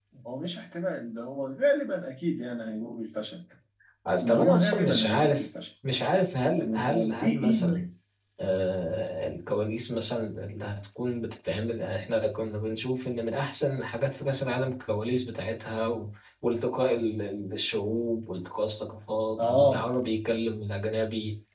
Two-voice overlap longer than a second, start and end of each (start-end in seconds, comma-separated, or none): 4.2-5.5, 6.5-7.8